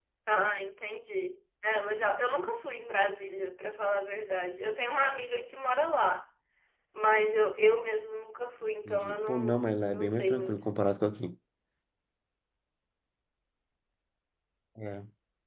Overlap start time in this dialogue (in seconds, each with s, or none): 8.9 s